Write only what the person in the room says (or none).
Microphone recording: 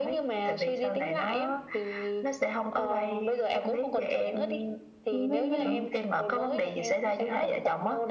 với, với